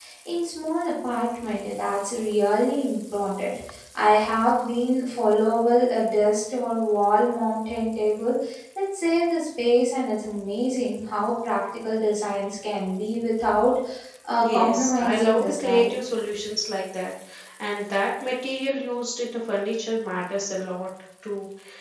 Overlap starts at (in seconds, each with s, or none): 14.4 s